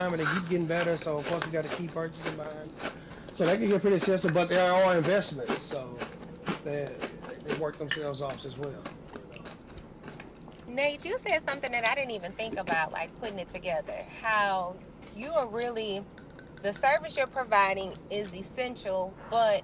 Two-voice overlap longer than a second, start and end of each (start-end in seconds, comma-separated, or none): none